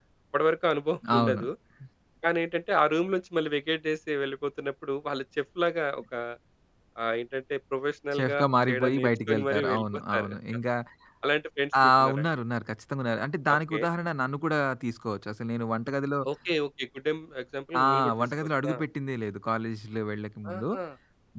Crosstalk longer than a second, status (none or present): present